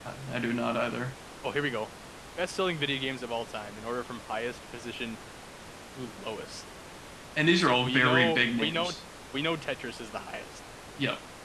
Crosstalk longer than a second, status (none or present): present